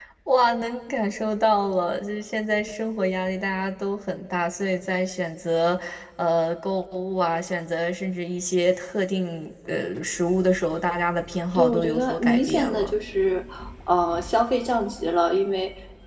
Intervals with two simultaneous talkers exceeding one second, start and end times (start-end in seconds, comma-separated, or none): 11.5-12.9